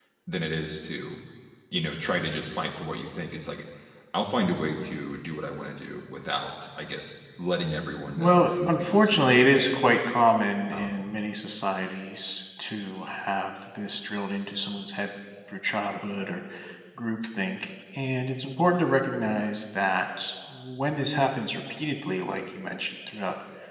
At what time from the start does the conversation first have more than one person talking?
8.2 s

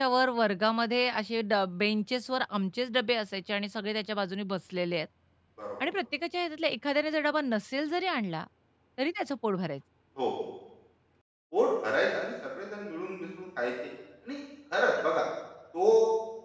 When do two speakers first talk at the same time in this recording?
none

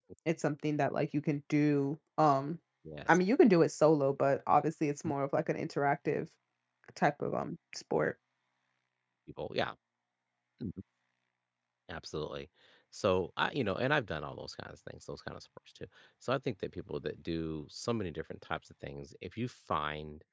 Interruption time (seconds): none

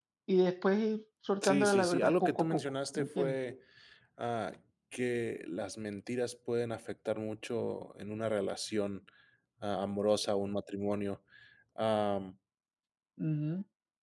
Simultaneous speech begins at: 1.4 s

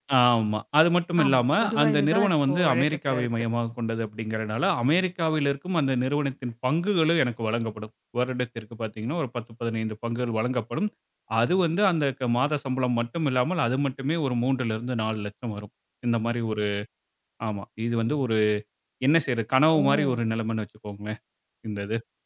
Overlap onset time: 1.2 s

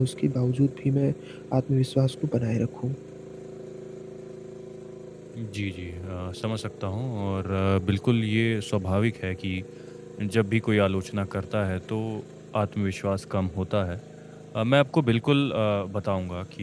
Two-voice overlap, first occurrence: none

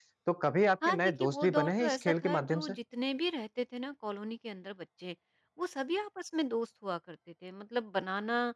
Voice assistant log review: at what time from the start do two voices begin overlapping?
0.8 s

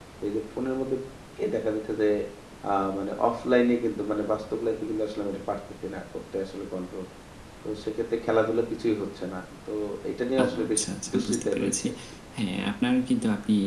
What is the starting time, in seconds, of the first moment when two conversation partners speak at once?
10.4 s

